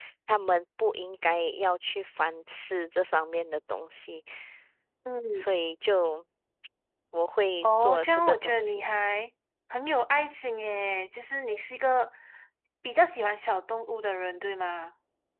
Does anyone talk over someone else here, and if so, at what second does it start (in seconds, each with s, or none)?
7.6 s